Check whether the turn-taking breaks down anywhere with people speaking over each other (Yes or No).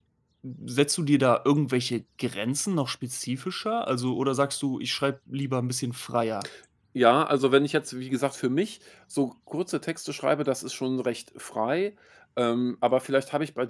No